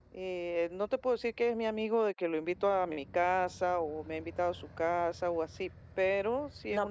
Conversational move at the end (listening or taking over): taking over